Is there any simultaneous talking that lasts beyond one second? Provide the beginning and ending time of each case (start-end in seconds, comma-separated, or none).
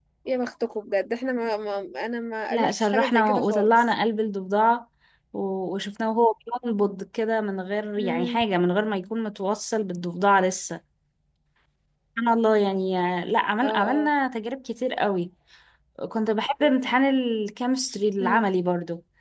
2.5-3.8